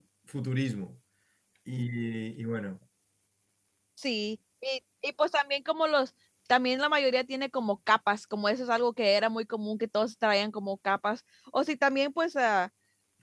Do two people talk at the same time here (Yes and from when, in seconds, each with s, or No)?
No